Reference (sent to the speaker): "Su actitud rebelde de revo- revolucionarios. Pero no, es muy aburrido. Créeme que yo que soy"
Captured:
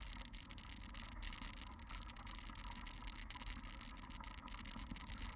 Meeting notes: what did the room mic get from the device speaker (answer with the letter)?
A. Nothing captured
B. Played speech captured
A